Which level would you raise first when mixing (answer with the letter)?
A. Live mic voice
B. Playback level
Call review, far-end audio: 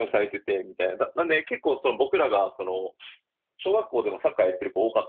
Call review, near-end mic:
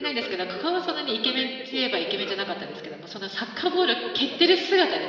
B